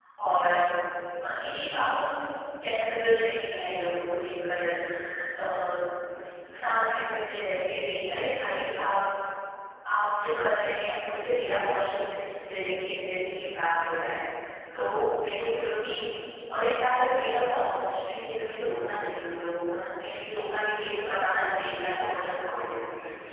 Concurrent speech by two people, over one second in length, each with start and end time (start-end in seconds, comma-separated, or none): 21.2-22.8